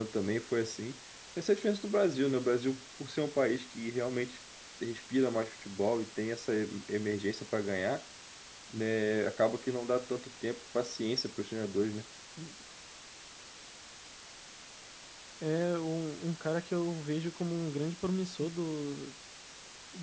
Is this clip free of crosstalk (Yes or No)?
Yes